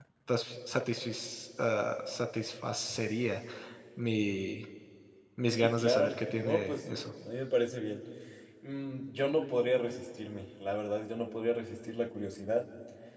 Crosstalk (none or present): present